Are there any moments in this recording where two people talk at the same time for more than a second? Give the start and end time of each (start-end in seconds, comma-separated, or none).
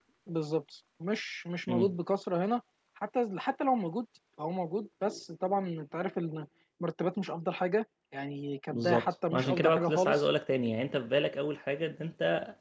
8.7-10.2